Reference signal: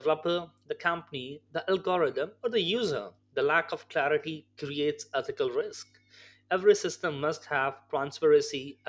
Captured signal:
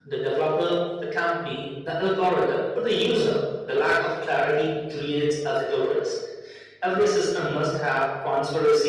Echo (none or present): present